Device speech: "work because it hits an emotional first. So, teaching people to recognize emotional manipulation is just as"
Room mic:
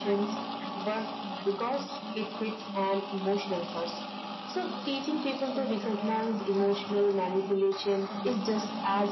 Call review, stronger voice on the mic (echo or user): echo